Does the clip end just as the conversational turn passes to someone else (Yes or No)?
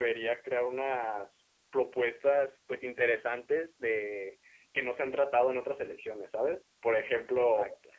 No